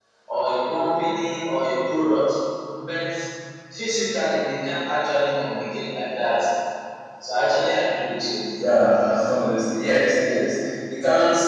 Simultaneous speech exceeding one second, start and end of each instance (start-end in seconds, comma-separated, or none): none